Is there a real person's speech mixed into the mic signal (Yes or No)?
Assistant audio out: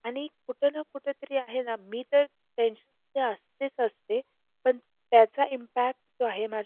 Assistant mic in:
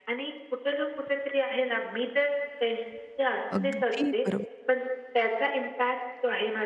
Yes